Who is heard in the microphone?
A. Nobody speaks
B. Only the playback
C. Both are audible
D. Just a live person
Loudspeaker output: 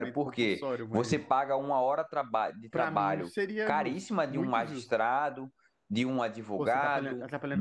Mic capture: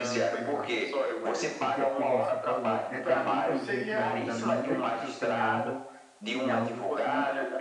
C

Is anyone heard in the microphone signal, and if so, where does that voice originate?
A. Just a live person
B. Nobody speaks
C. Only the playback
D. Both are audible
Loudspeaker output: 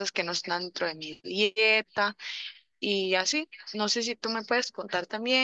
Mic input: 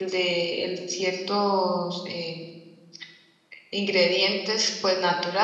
A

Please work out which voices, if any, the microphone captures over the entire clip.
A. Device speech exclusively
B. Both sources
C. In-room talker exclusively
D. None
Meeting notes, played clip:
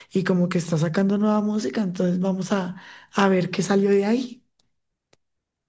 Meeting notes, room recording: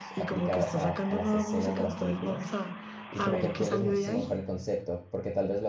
B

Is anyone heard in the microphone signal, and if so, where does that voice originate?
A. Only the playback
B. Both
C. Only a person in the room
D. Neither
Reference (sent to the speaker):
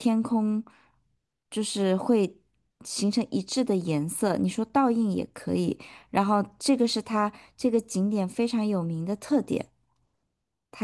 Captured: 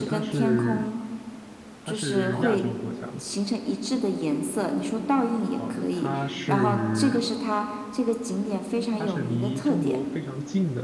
B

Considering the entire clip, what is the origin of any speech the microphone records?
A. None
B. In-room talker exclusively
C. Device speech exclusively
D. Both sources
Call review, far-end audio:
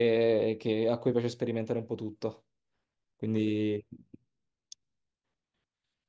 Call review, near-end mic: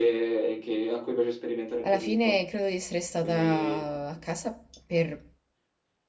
D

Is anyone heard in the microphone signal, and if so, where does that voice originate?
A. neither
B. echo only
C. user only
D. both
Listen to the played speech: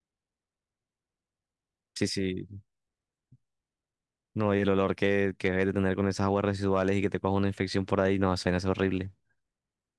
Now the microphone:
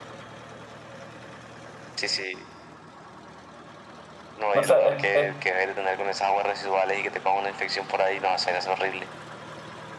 D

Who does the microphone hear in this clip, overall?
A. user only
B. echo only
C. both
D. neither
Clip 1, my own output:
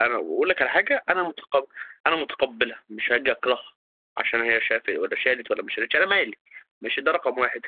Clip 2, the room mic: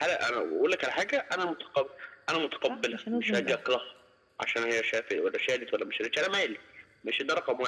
C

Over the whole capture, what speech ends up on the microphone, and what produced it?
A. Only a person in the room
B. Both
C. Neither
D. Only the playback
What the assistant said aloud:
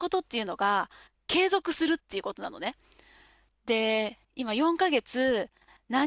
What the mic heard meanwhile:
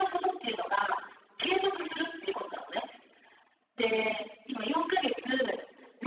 D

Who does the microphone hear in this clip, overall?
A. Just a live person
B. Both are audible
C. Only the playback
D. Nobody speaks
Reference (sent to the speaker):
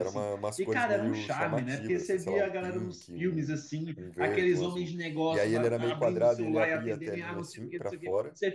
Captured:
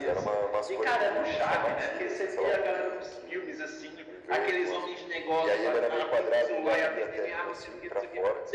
C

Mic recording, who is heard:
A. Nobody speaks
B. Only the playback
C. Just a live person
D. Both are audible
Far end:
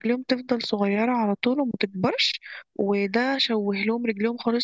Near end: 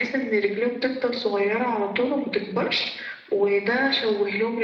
B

